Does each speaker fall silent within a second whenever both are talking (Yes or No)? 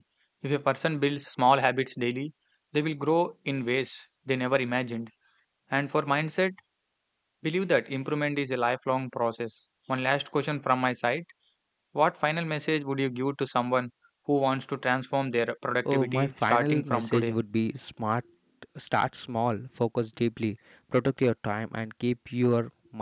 No